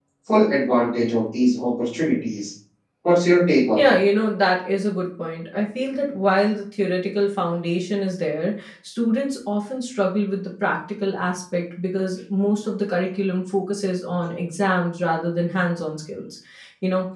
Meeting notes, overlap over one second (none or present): none